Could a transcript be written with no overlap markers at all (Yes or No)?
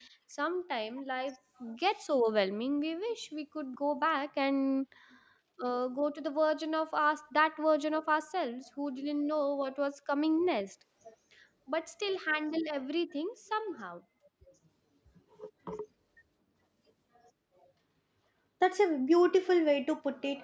Yes